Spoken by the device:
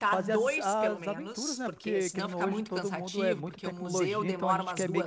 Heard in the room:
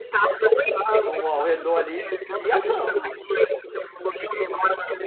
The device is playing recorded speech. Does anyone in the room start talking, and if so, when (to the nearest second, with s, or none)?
1 s